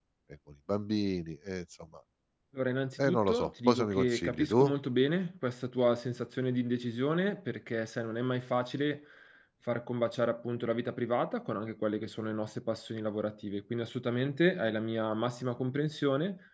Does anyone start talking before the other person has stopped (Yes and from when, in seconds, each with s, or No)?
Yes, from 3.0 s